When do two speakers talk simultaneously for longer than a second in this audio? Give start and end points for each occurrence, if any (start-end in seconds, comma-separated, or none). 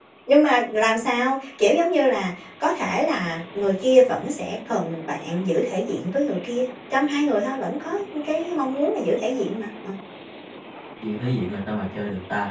none